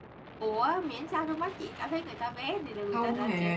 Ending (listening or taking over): taking over